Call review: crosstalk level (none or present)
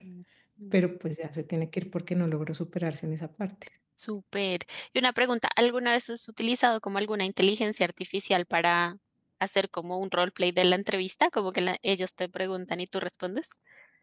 none